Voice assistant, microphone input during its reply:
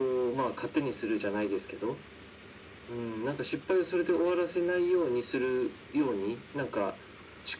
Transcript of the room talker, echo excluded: none

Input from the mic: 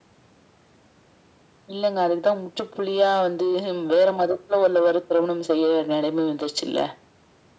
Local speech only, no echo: none

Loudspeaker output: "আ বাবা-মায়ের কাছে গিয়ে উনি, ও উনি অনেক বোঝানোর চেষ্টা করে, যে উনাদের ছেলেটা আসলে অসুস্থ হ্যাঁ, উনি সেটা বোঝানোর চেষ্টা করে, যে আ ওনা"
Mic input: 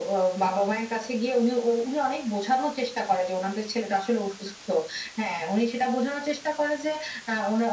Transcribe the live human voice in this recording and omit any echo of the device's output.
none

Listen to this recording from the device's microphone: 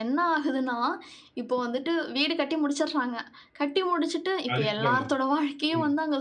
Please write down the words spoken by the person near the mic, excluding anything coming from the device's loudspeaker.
அதுக்கு தான்ம ம்.

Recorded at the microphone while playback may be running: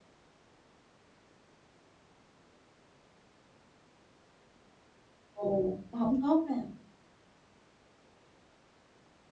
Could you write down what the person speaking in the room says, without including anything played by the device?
Ồ! Cũng hổng tốt ha.

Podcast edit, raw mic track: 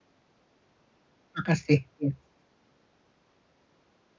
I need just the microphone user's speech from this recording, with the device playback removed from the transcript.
Makasih ya.

